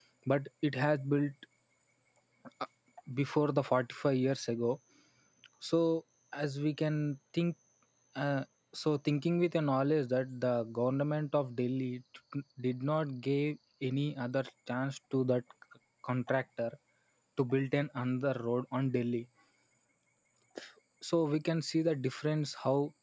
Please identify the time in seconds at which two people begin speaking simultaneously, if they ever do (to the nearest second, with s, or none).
none